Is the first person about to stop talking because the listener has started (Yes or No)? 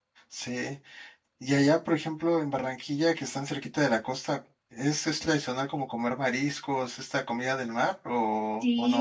Yes